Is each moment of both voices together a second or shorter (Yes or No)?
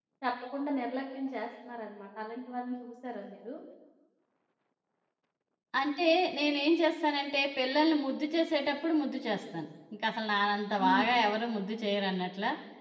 Yes